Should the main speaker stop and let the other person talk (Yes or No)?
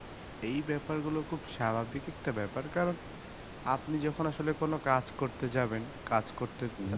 No